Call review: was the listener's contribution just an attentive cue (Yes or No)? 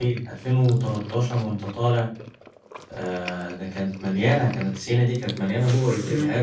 Yes